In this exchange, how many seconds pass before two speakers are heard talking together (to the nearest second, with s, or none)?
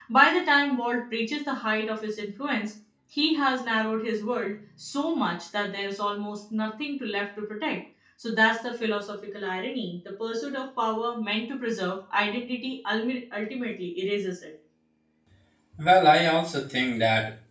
none